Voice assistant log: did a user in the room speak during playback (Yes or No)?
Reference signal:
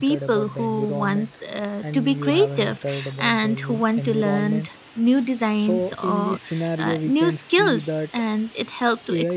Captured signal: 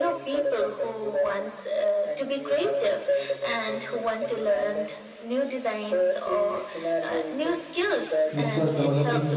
Yes